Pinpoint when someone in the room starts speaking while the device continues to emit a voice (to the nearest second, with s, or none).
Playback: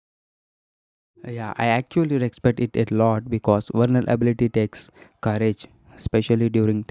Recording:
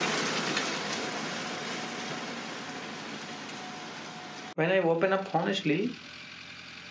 5 s